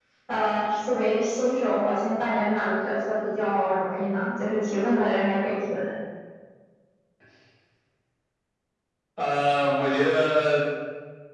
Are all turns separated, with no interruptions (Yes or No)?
Yes